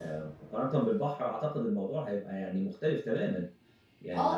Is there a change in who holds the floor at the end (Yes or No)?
Yes